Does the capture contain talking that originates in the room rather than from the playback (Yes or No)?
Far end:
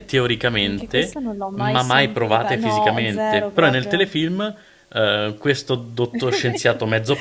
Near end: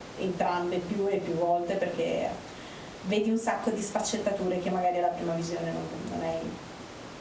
Yes